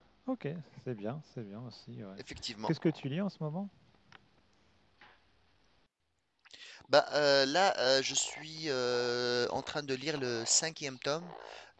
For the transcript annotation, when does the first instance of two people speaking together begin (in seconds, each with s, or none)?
none